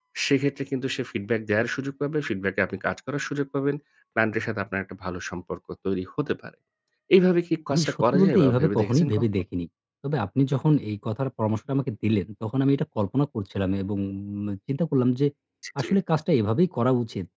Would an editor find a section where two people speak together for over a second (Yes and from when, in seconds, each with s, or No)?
Yes, from 7.7 s